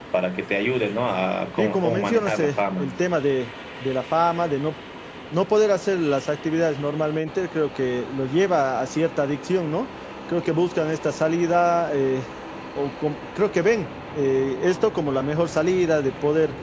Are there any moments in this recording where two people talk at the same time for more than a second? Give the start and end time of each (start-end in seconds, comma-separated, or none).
1.6-2.9